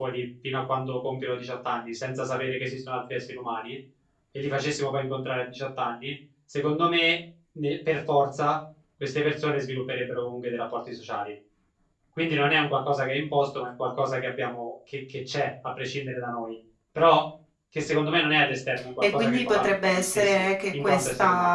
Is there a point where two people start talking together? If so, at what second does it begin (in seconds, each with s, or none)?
19.0 s